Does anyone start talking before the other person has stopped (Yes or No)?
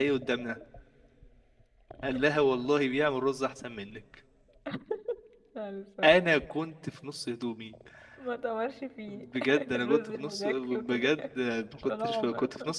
Yes